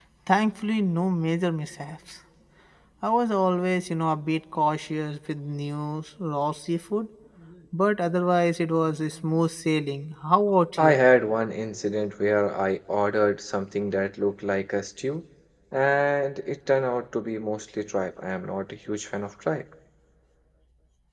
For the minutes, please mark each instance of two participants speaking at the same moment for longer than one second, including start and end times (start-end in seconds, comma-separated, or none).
none